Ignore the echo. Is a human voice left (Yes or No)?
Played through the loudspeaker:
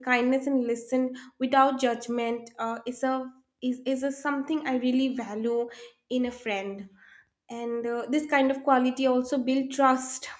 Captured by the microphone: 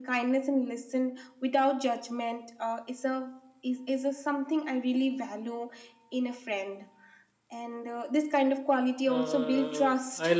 Yes